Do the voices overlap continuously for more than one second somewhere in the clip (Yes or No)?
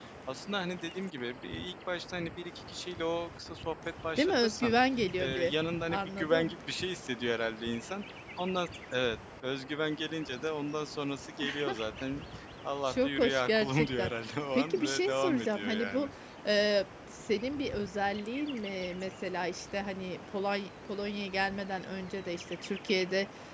Yes